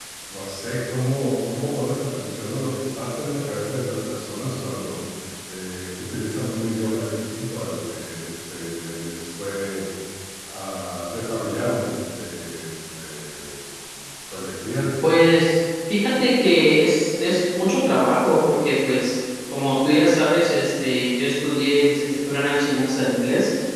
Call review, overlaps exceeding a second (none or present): none